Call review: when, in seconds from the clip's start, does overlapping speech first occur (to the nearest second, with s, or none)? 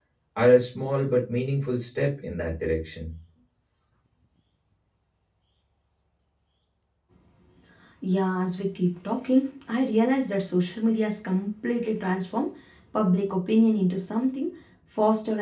none